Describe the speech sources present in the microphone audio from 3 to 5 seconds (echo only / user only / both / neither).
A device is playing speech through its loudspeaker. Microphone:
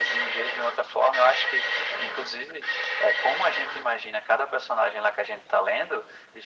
echo only